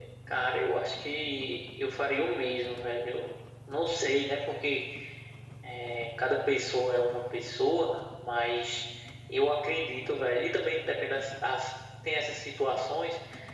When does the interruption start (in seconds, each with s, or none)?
none